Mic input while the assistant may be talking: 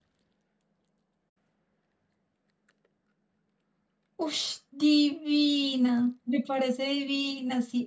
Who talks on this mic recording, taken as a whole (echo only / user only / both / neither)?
user only